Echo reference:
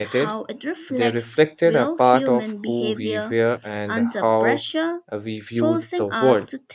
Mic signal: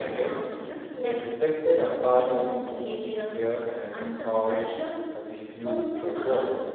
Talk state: echo only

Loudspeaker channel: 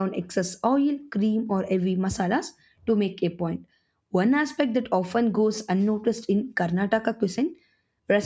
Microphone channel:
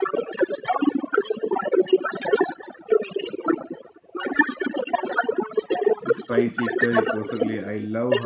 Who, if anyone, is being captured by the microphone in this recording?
both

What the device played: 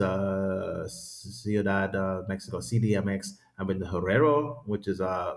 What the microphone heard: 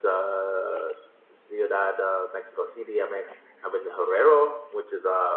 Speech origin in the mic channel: echo only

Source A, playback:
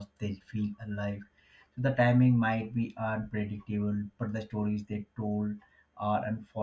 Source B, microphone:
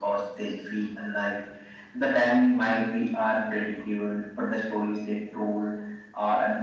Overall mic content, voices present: echo only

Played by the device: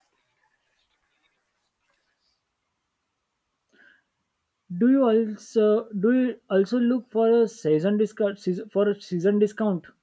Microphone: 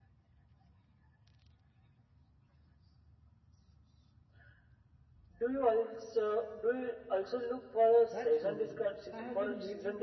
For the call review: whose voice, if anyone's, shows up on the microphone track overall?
both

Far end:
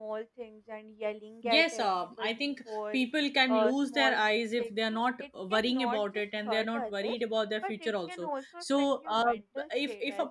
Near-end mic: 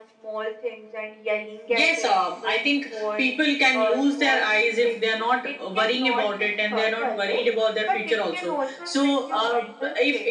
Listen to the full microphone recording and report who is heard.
echo only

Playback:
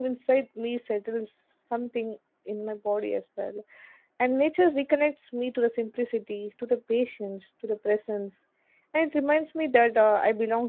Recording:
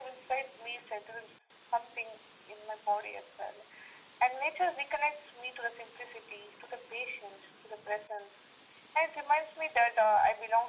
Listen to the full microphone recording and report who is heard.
echo only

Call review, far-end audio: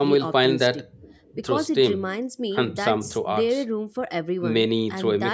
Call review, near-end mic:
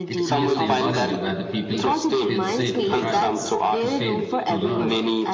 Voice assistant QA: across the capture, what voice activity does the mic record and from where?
both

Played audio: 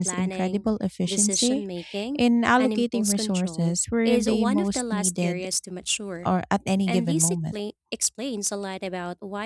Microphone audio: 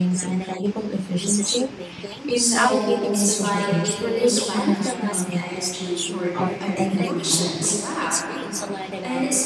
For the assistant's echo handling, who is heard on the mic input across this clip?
both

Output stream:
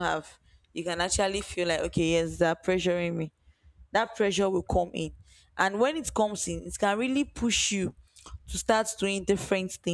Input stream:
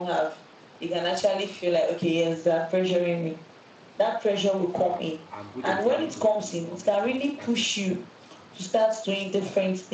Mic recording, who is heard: both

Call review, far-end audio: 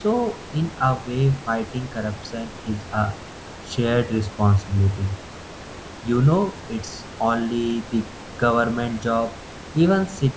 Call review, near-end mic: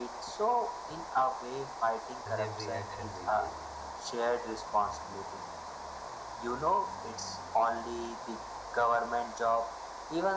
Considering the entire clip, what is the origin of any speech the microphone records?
both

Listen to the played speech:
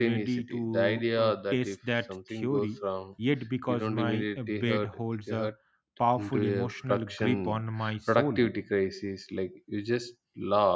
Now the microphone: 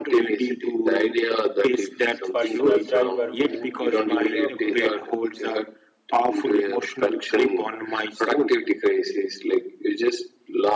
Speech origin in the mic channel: both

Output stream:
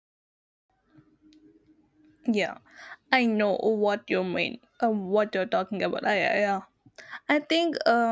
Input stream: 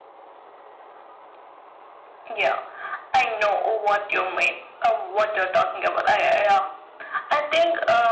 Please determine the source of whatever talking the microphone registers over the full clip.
echo only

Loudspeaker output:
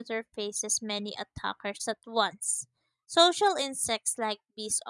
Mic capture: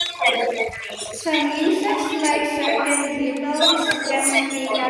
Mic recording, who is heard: both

